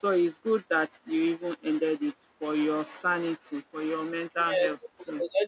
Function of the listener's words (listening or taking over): taking over